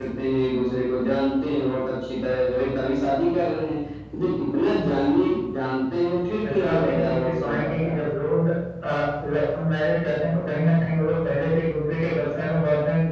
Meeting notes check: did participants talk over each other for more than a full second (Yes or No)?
Yes